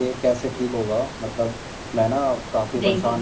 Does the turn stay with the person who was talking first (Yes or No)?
Yes